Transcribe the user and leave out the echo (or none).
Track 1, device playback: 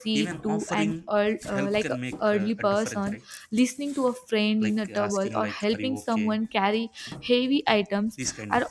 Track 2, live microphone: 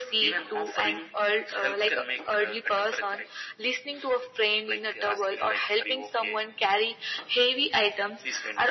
none